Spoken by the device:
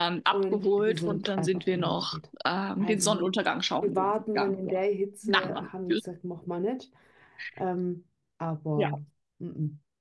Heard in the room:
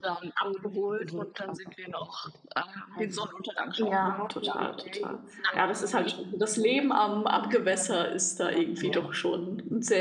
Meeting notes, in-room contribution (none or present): present